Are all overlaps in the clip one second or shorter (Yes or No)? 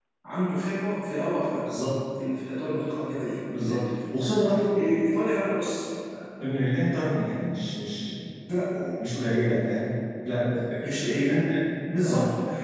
Yes